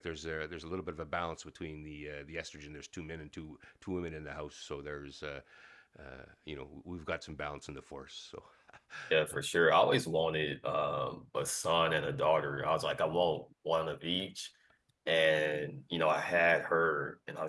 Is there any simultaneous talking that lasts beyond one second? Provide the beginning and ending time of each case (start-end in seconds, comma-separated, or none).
none